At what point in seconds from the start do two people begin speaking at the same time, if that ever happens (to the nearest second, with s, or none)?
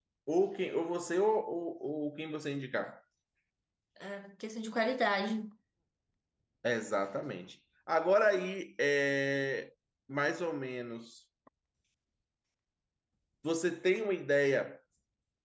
none